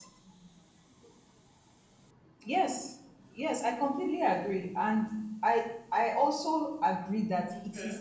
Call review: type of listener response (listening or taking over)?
listening